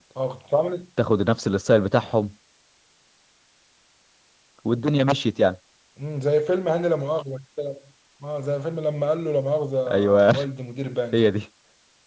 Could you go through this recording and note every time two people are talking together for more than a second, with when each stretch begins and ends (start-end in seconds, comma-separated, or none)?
none